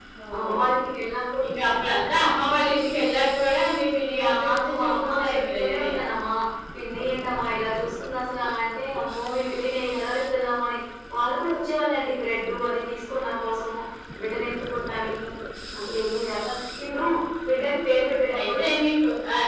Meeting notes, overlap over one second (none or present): present